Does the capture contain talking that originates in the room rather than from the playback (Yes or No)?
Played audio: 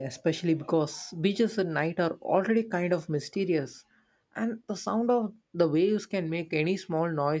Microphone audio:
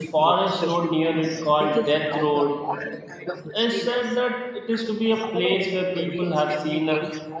Yes